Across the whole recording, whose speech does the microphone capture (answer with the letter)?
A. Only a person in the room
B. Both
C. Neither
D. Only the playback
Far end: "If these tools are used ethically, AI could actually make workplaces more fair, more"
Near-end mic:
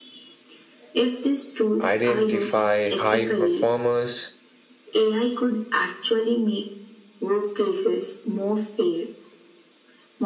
B